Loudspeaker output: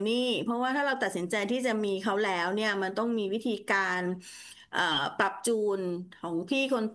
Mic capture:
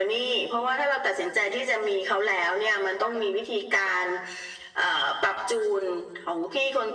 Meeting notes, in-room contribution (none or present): none